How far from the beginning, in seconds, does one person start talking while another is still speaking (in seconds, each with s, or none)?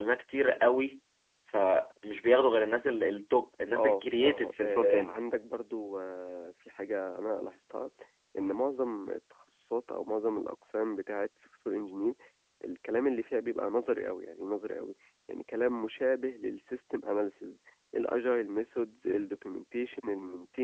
3.7 s